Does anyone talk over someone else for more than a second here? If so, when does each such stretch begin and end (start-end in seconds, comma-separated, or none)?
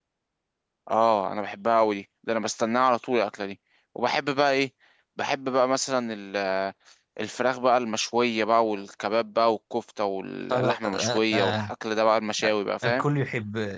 10.5-11.7